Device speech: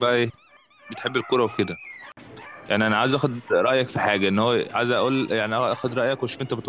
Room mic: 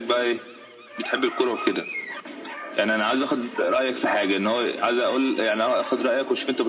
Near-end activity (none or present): none